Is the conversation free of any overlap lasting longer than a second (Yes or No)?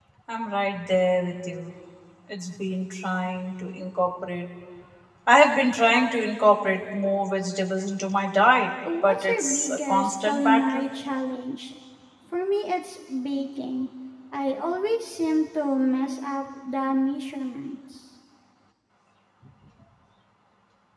No